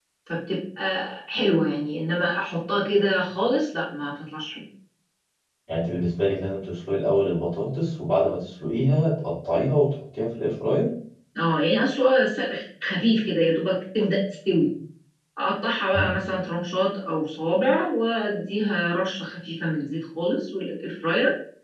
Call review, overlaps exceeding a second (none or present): none